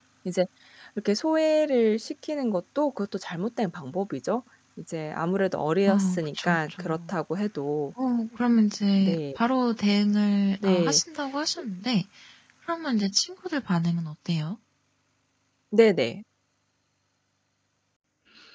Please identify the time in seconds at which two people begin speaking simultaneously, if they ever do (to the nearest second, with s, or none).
6 s